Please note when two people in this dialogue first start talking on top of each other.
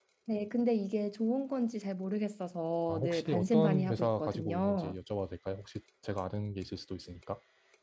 3 s

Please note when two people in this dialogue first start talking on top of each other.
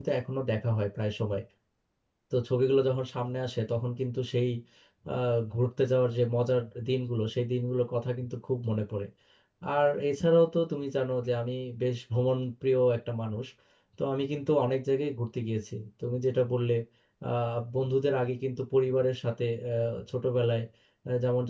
none

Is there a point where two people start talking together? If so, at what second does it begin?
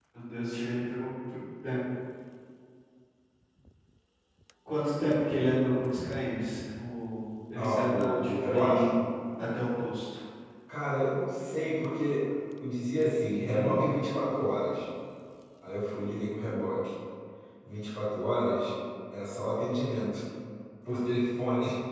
8 s

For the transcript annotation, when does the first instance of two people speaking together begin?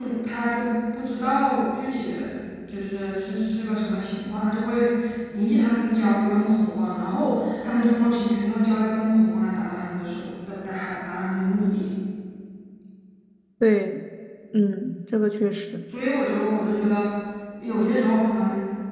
none

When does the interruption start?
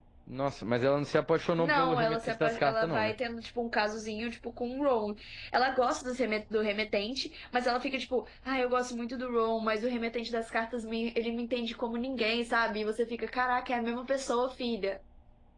2 s

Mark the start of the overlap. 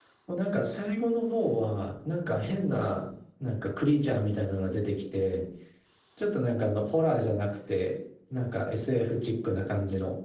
none

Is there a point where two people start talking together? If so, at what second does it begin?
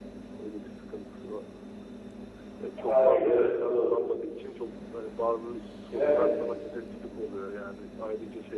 3 s

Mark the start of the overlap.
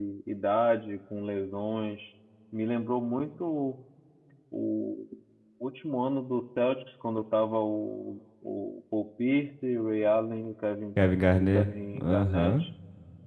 11 s

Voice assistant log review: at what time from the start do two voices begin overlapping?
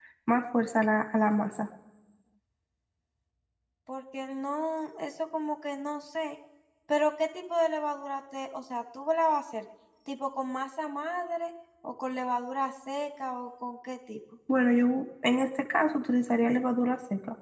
none

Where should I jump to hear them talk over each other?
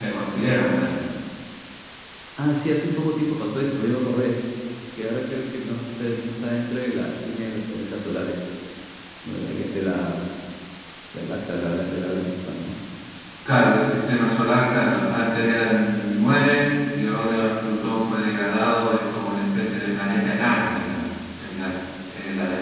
none

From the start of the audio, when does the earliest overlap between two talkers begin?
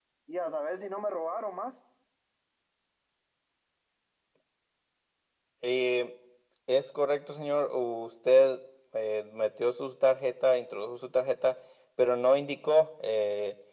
none

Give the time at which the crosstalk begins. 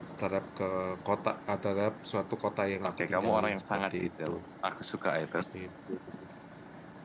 3 s

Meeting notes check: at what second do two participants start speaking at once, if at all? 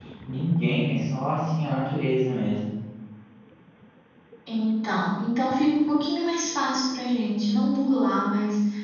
none

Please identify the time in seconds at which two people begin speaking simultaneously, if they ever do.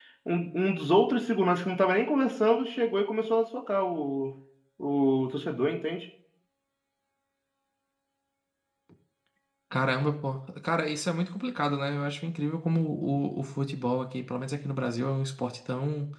none

